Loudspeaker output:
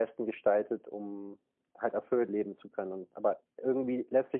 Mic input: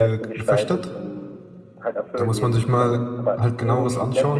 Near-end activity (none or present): present